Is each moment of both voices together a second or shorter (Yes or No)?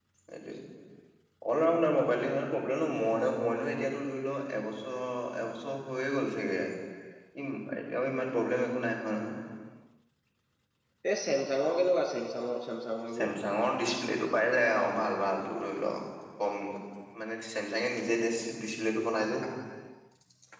Yes